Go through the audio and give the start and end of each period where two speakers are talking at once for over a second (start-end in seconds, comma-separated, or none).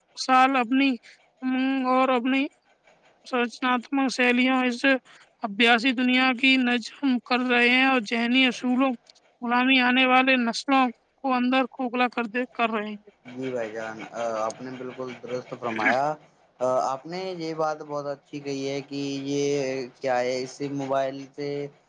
none